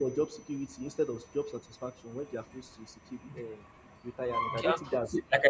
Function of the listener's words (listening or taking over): taking over